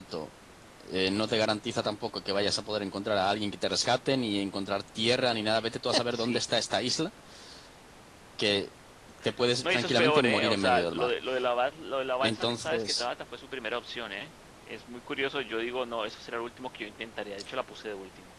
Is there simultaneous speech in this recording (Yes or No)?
Yes